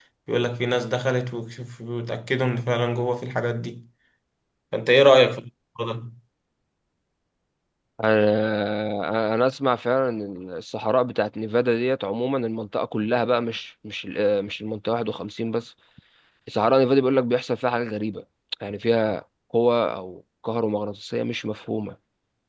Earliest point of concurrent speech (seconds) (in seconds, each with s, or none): none